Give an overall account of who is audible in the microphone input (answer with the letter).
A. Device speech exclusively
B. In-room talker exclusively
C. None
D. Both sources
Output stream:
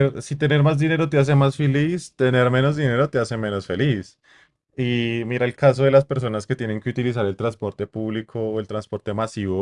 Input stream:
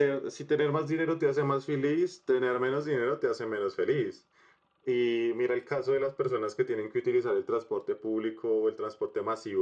A